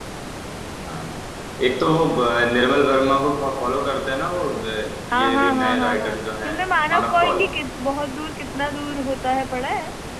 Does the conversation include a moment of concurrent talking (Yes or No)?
Yes